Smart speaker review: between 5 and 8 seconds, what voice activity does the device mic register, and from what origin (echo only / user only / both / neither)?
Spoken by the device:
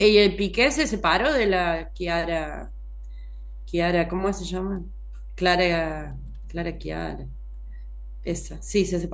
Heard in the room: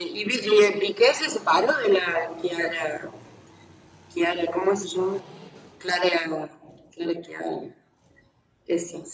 echo only